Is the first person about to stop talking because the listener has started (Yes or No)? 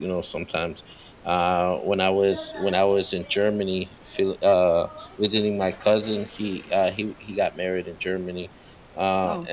No